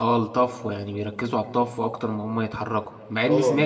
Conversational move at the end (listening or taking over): listening